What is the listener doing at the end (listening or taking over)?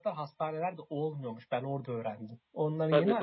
taking over